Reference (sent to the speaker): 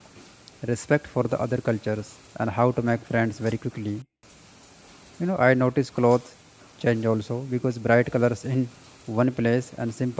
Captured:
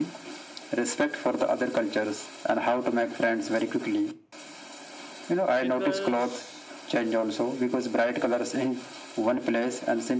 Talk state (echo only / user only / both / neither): both